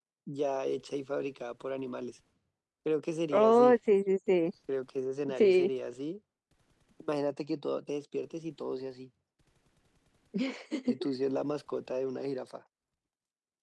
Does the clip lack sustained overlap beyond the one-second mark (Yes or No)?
Yes